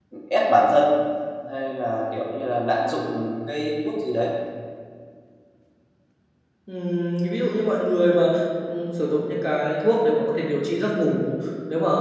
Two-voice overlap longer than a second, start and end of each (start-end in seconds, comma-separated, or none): none